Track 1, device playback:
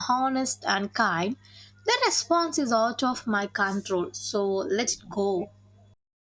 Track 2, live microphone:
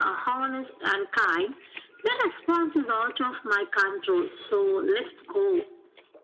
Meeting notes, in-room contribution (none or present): none